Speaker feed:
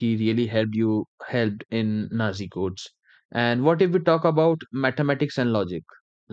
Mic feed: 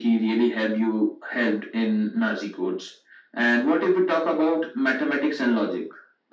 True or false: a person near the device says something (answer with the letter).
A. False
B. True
A